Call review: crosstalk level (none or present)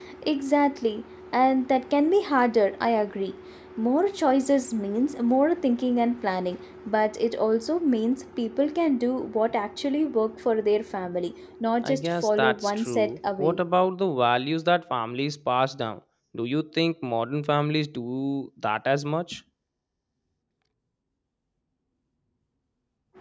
present